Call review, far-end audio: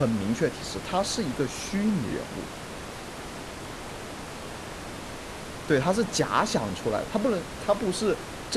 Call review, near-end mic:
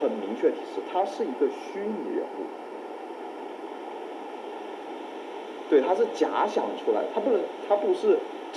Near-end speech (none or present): none